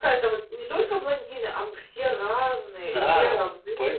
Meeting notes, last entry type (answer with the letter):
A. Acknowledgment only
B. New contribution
B